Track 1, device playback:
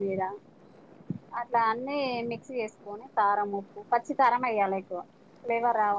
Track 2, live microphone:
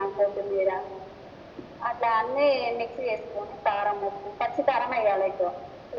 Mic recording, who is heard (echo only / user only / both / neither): echo only